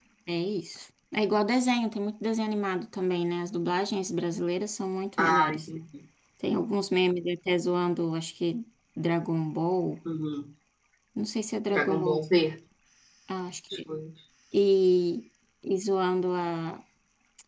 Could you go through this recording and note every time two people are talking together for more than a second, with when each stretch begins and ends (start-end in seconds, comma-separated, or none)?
none